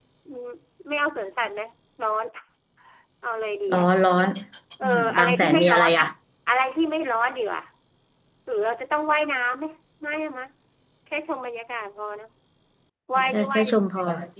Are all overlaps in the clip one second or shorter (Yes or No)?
No